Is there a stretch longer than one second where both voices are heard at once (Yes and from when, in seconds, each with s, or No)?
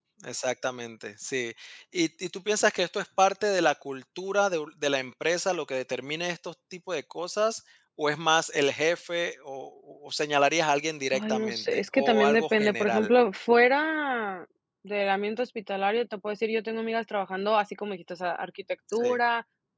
Yes, from 11.1 s